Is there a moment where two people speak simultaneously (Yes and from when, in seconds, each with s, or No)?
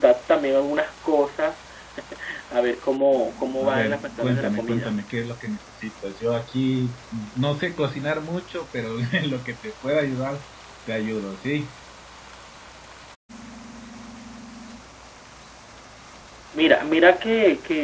Yes, from 3.6 s